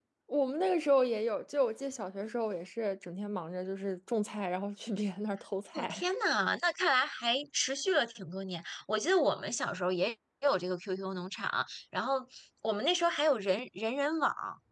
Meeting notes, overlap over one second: none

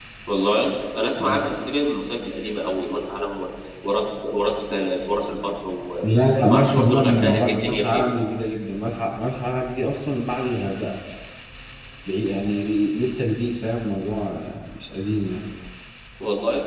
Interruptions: present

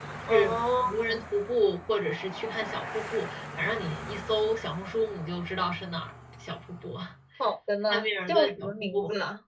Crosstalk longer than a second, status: present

